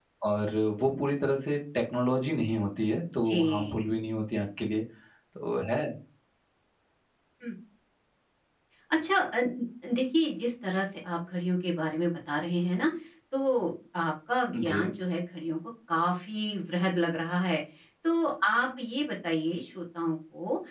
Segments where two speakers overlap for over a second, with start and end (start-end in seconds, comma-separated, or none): none